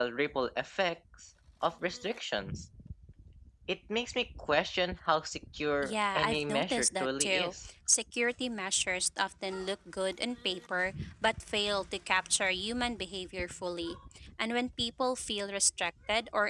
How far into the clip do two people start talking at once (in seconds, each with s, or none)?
5.8 s